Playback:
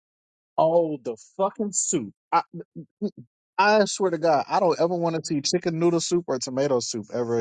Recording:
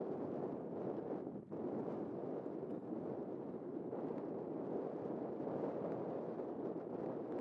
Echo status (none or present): none